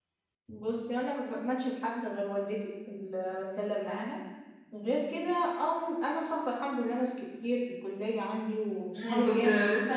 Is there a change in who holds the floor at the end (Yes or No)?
Yes